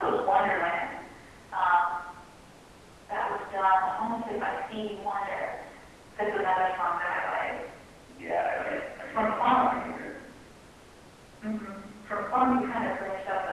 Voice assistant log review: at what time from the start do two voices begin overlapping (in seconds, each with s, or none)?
8.5 s